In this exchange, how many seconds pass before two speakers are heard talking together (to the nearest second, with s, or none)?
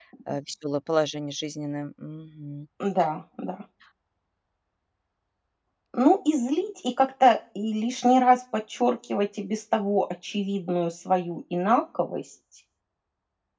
none